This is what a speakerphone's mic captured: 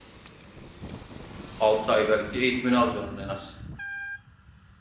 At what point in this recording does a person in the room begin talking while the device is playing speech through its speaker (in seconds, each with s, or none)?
1.6 s